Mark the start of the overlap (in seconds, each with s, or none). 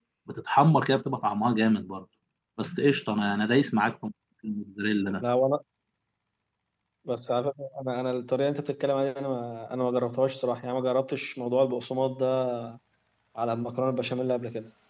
none